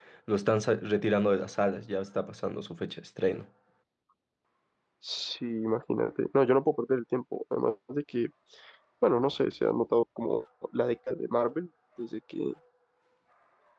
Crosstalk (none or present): none